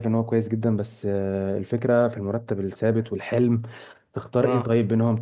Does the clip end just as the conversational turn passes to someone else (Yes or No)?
No